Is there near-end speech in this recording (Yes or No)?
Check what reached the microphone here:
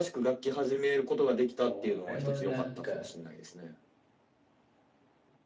Yes